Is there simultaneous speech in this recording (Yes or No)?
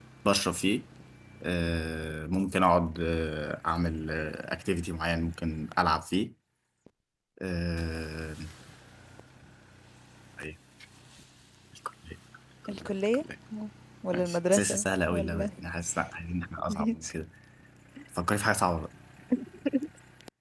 Yes